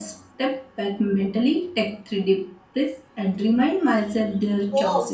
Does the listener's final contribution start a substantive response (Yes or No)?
Yes